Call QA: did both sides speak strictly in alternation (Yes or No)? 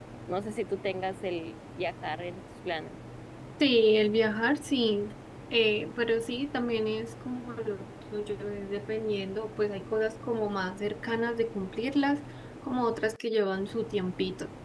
Yes